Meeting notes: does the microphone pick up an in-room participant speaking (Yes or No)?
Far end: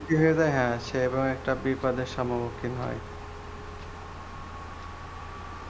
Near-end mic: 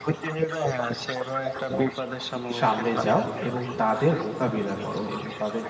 Yes